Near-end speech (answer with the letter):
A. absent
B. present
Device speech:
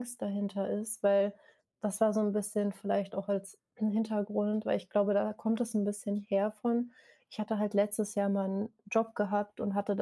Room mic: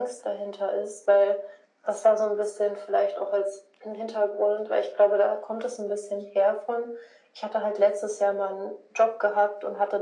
A